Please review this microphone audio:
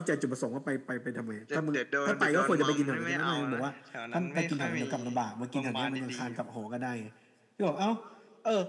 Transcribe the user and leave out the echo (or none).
none